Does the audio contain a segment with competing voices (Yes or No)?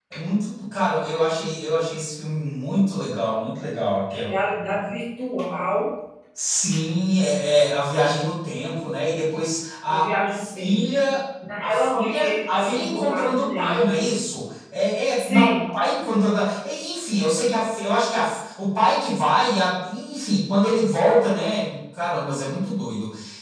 Yes